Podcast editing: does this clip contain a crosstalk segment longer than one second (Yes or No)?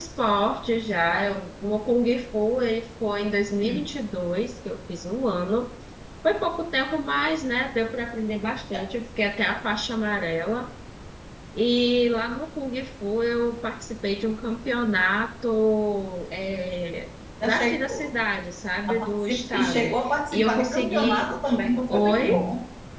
Yes